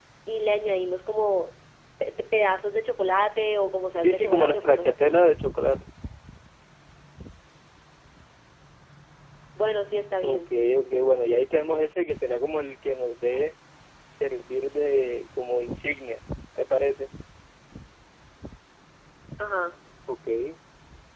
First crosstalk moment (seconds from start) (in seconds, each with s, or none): 4.0 s